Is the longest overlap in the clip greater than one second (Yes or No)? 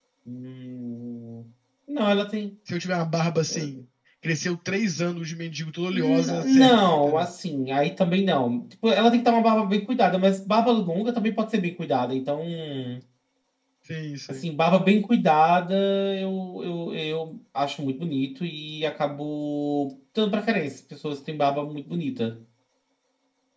Yes